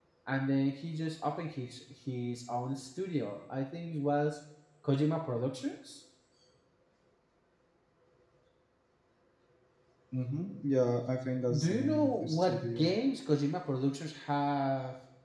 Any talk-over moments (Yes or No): Yes